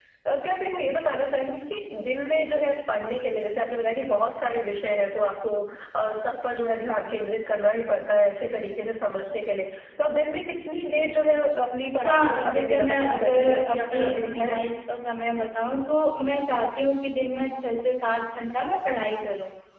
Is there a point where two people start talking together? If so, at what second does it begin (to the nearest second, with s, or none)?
12 s